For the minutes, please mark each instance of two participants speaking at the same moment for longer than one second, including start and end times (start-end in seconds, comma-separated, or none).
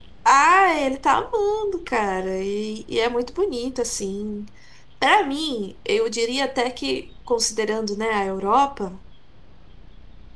none